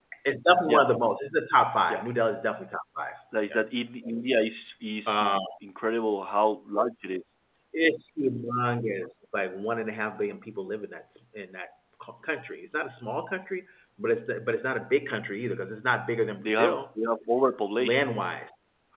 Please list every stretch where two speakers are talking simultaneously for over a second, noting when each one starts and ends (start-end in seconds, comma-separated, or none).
none